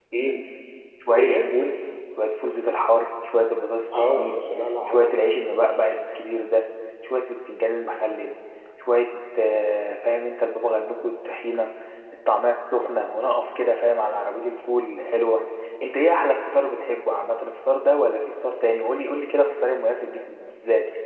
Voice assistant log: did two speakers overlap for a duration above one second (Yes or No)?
No